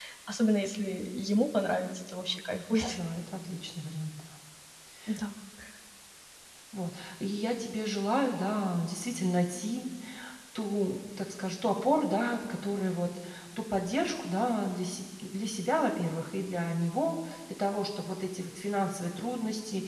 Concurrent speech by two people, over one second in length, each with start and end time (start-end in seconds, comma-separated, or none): none